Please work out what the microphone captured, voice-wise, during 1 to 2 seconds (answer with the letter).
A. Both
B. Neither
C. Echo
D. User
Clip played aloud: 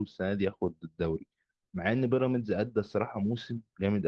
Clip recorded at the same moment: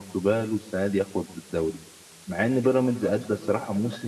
C